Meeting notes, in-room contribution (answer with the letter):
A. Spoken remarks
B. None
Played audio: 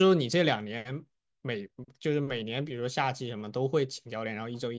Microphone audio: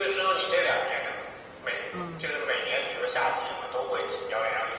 A